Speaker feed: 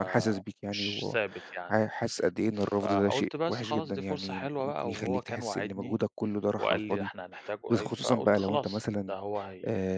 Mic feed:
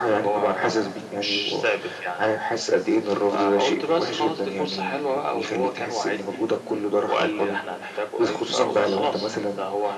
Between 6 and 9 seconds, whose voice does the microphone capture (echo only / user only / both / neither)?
echo only